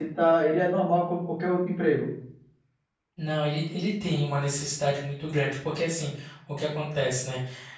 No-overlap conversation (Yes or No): Yes